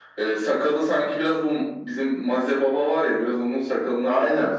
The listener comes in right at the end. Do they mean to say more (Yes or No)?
Yes